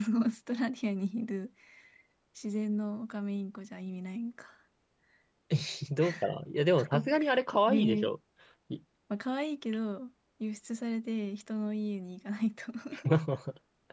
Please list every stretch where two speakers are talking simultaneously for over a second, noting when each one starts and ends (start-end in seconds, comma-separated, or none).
none